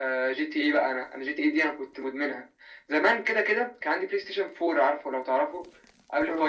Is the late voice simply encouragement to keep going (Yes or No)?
Yes